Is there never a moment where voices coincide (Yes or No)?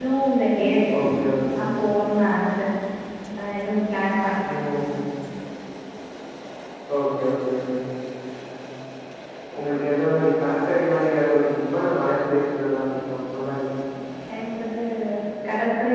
Yes